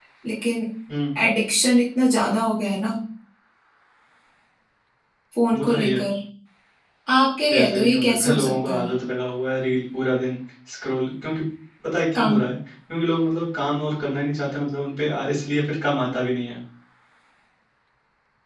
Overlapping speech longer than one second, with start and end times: 7.5-8.9

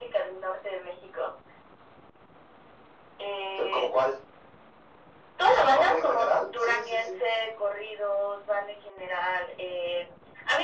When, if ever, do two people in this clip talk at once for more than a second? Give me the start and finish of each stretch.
5.4-7.2

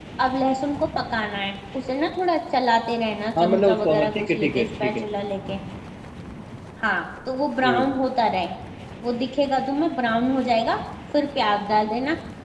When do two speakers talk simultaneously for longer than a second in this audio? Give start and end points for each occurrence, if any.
3.4-5.0

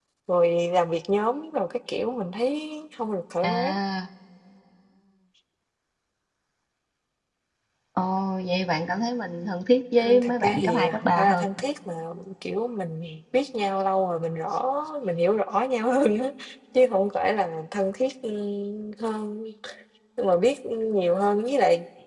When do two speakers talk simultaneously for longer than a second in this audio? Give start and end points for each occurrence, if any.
10.0-11.4

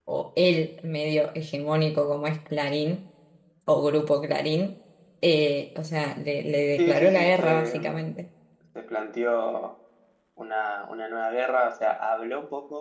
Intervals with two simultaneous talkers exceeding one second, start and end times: 6.8-8.1

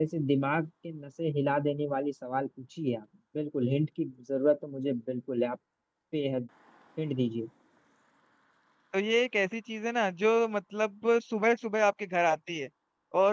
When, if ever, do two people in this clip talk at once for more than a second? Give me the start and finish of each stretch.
none

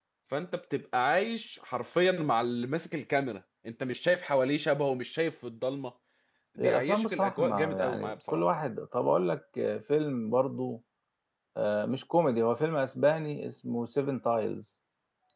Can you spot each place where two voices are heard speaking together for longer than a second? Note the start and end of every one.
6.6-8.4

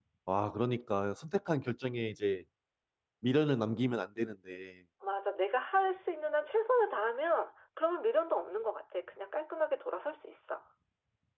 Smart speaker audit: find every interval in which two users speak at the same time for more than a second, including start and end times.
none

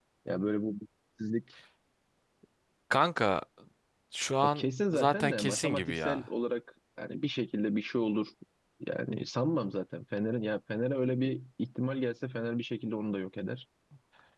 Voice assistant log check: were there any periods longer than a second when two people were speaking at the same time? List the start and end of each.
4.5-6.3

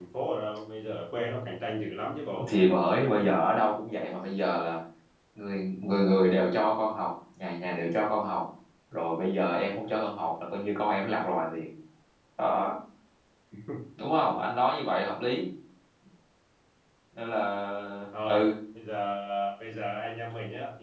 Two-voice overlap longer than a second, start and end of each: none

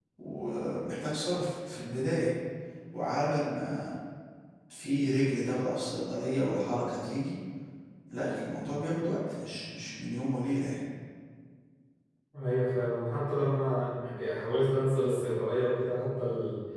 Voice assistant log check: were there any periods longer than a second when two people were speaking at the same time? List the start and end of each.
none

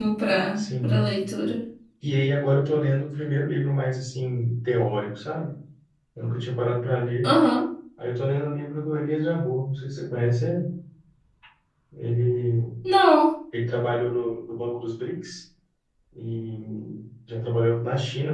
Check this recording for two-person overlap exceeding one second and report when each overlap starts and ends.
none

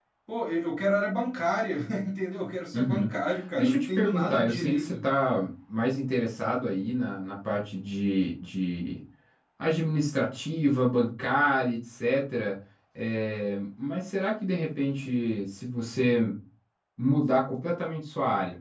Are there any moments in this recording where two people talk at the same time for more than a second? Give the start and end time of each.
3.6-5.0

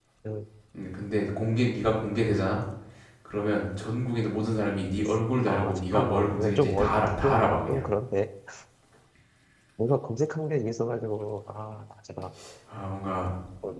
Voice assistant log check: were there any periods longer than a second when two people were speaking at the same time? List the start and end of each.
5.5-7.8

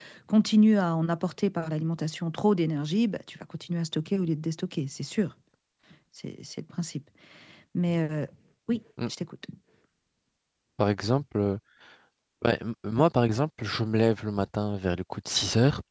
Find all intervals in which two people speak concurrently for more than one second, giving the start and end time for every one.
none

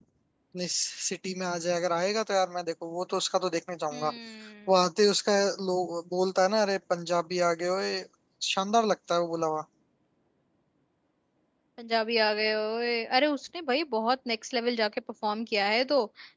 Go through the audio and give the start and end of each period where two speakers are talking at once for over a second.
none

